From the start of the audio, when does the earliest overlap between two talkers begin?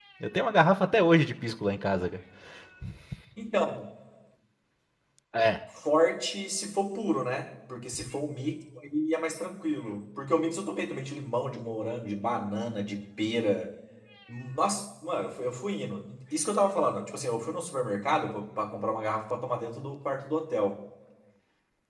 none

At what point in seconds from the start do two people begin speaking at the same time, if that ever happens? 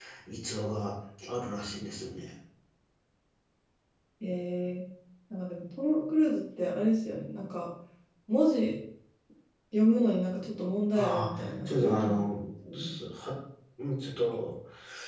10.9 s

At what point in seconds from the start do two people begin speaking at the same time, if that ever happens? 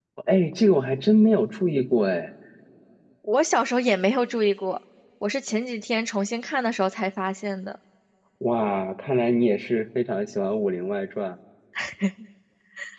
none

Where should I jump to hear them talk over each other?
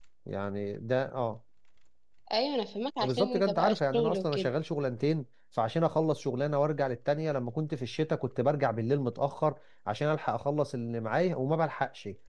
3.0 s

